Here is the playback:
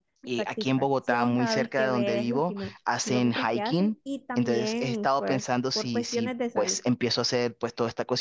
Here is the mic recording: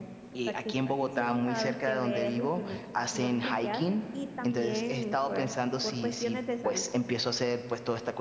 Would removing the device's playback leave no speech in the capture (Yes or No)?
Yes